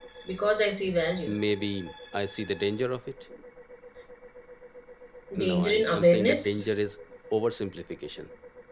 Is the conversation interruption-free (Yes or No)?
No